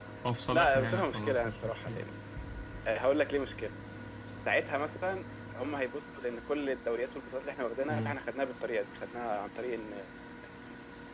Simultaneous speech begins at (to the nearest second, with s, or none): 1 s